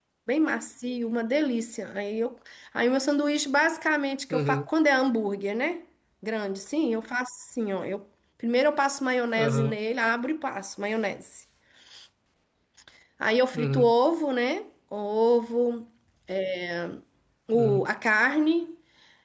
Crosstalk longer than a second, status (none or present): none